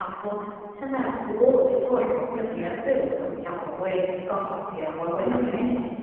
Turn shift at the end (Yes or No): No